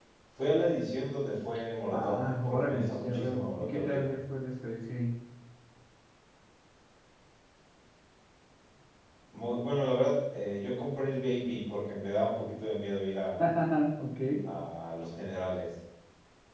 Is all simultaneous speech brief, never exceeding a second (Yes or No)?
No